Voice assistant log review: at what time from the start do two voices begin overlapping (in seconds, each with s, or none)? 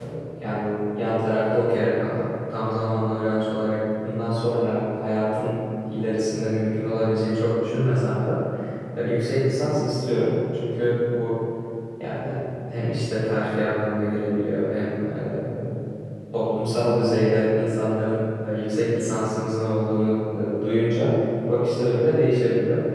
none